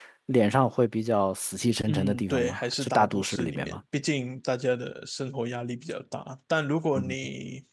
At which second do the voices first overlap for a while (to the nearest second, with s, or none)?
2 s